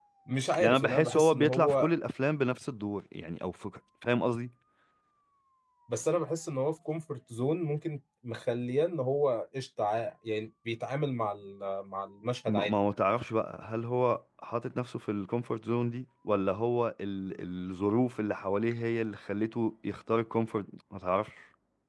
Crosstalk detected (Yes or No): Yes